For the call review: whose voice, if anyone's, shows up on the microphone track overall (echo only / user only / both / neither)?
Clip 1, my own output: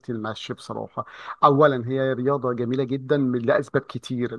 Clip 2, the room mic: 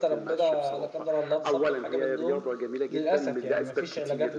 both